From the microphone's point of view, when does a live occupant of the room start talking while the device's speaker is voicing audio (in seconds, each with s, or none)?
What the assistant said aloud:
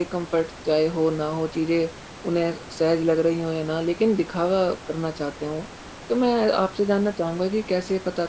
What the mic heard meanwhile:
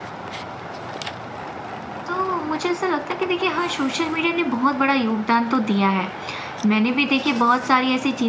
2.1 s